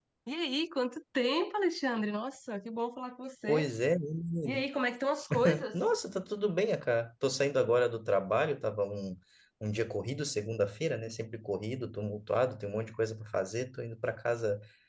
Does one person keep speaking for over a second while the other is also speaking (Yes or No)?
No